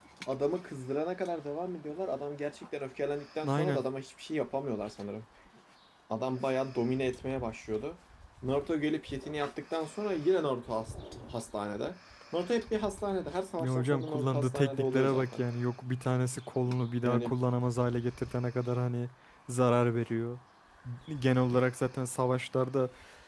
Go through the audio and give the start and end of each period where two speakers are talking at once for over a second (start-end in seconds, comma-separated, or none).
13.6-15.4